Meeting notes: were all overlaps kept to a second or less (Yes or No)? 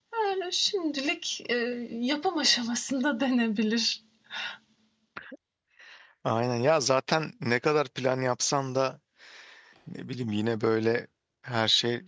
Yes